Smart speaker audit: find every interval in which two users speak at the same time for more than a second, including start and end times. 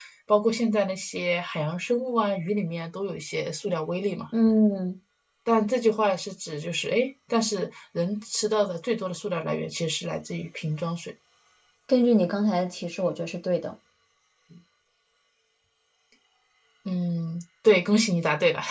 none

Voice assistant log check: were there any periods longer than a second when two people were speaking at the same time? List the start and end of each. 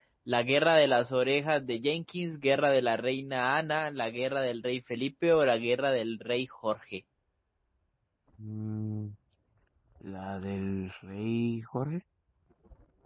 none

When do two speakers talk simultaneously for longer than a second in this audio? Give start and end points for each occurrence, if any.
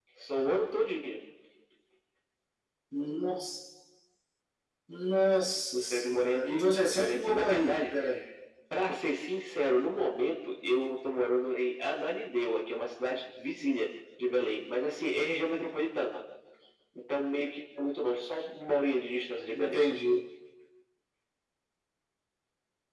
5.9-7.9

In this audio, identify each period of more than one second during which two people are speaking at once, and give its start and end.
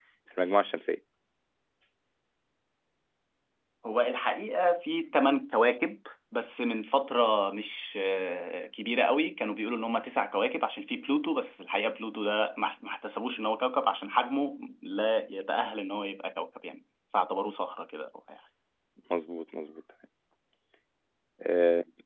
none

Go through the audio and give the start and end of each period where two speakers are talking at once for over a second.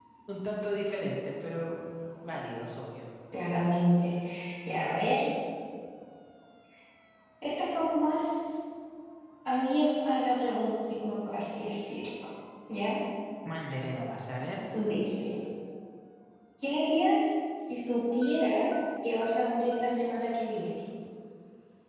none

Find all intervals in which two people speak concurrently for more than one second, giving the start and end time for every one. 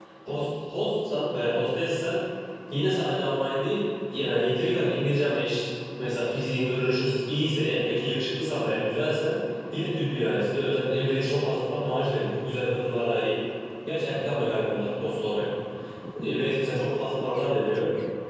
none

